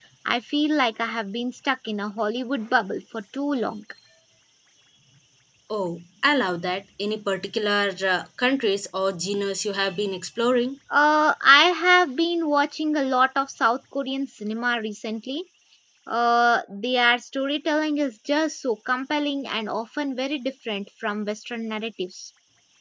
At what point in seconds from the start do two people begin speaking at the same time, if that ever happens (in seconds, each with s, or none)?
none